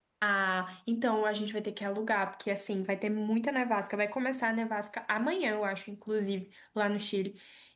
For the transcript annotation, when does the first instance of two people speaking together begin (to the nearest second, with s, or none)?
none